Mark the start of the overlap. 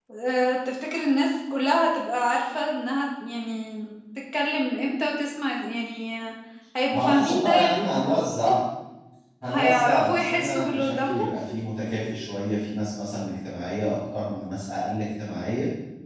6.9 s

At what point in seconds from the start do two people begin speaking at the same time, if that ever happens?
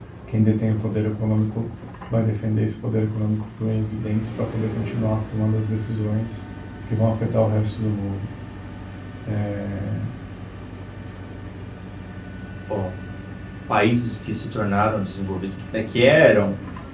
none

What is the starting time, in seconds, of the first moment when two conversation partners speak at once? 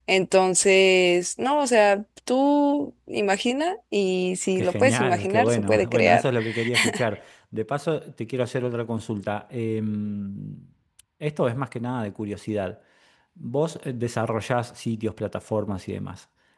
4.6 s

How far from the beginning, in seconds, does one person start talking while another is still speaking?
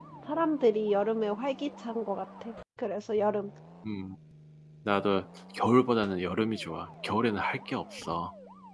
none

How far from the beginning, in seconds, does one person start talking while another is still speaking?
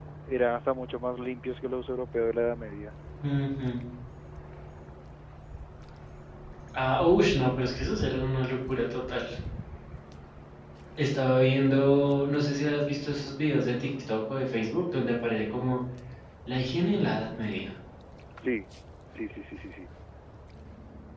none

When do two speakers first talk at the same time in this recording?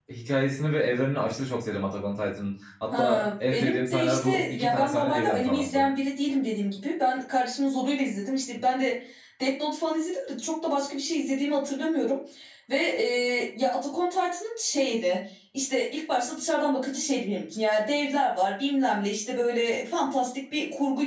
2.9 s

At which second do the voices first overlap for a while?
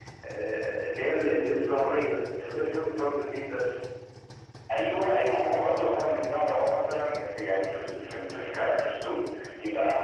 none

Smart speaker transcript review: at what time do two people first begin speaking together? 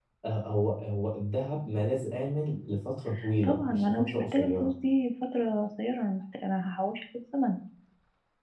3.4 s

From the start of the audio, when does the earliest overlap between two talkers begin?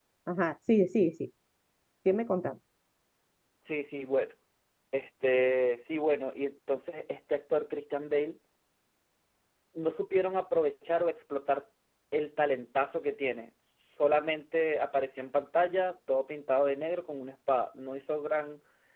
none

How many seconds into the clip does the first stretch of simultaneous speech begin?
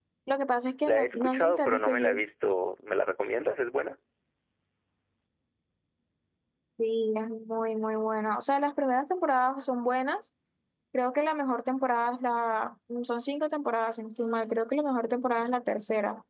0.8 s

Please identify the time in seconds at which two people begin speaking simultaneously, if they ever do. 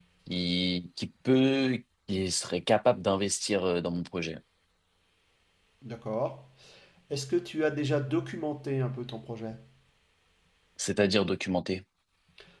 none

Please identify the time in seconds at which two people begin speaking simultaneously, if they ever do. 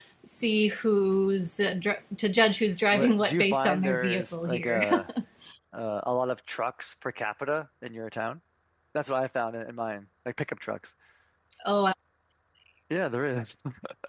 2.9 s

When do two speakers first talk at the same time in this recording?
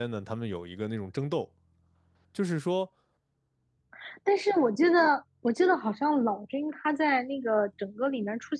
none

